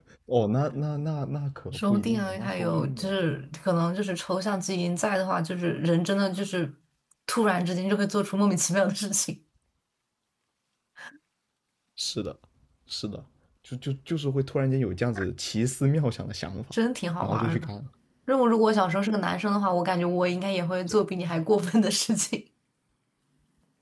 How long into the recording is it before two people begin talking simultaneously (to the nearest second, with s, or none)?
2 s